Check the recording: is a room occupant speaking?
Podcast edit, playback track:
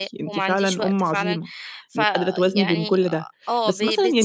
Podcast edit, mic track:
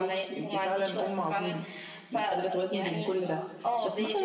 No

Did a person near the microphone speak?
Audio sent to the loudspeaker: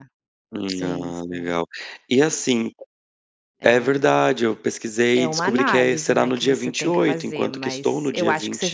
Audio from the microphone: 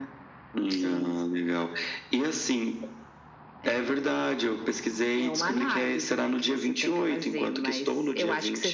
No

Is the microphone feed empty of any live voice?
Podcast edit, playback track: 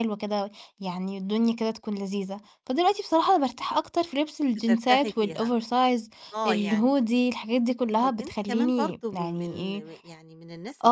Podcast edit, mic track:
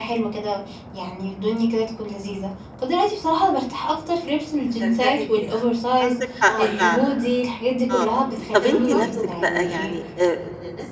No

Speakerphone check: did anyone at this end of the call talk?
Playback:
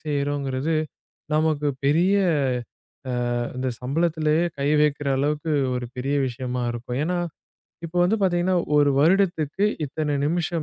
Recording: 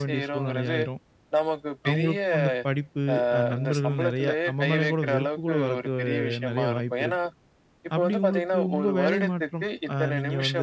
Yes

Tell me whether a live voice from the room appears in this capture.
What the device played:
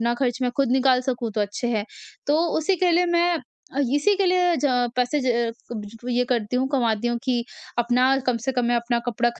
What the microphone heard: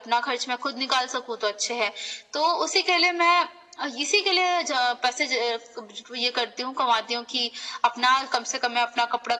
No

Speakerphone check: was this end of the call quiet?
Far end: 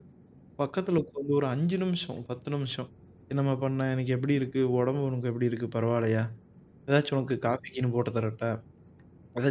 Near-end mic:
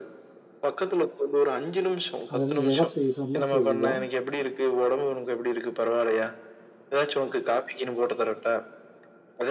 No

